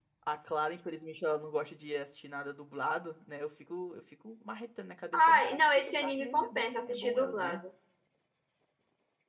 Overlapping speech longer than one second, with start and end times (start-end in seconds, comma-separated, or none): 5.1-7.6